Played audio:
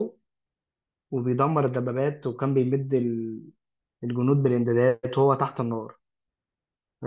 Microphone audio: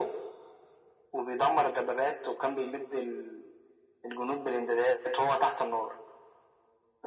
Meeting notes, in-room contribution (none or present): none